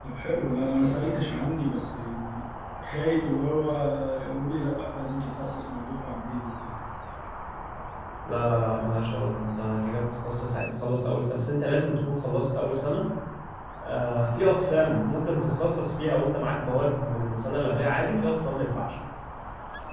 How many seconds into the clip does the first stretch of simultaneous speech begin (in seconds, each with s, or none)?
none